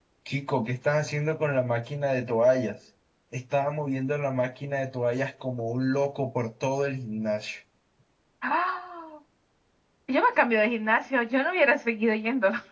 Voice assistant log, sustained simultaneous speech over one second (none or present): none